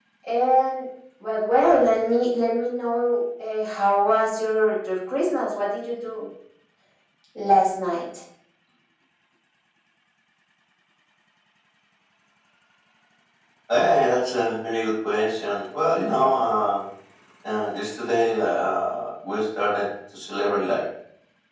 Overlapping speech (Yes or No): No